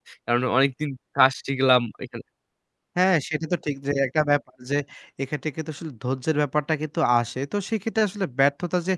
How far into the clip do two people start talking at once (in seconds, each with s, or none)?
none